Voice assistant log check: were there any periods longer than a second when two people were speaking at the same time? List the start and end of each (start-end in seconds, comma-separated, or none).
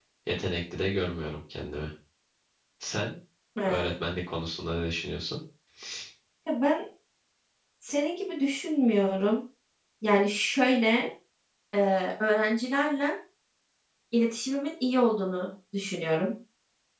none